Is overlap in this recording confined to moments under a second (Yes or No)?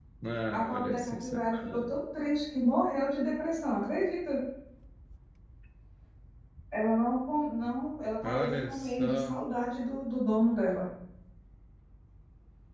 No